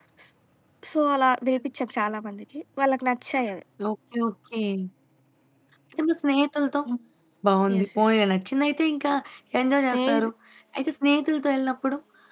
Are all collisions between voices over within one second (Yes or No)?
Yes